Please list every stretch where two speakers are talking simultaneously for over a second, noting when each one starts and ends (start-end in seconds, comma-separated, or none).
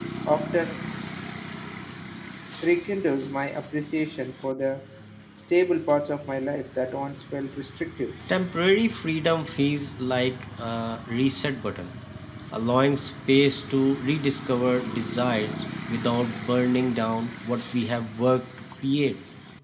none